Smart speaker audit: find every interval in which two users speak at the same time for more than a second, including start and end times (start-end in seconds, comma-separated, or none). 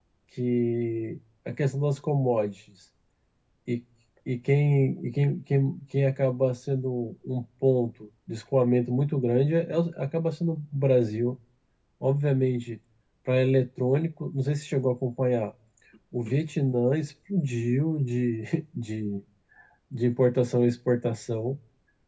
none